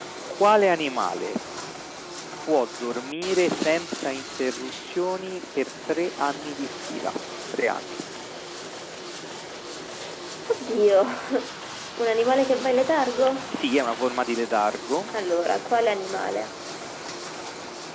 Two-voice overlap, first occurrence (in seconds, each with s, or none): none